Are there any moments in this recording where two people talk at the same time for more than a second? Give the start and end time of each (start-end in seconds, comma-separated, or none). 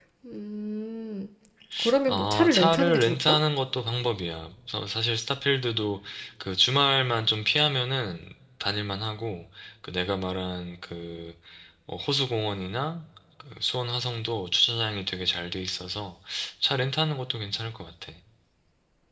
2.1-3.4